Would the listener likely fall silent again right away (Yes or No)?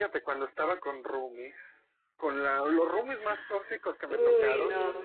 Yes